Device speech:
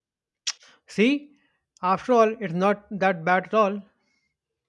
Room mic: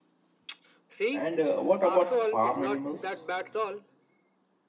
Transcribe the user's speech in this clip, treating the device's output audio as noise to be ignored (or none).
And uh, what about farm animals?